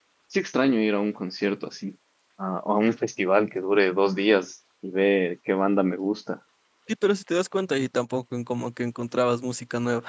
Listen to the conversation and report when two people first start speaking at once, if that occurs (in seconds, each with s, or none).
none